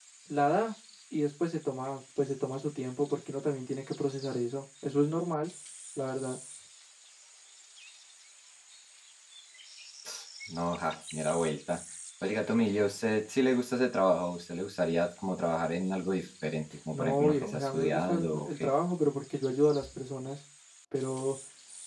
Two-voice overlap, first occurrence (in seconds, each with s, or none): 16.9 s